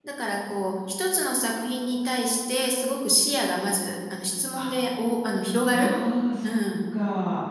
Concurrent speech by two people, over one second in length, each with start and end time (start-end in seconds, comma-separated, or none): none